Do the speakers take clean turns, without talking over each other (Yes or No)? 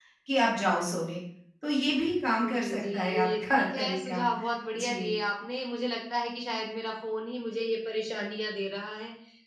No